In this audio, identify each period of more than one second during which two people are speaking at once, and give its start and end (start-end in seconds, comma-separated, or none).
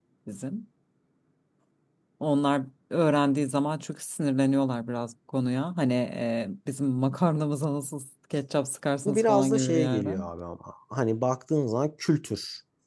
9.1-10.3